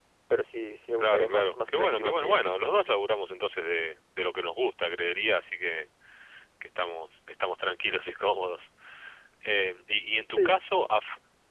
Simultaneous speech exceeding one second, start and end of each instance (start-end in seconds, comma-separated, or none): 1.0-2.8